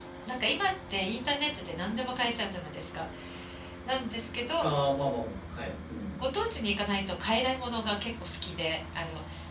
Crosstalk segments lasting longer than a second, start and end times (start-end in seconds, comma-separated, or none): none